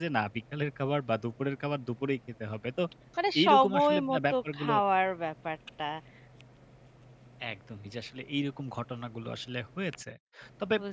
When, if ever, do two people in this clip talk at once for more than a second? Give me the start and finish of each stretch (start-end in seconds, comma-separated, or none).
3.4-4.7